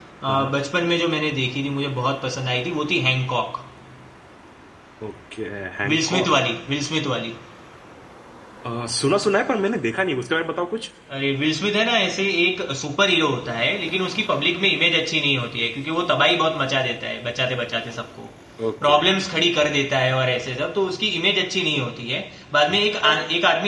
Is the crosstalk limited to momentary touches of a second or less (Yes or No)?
Yes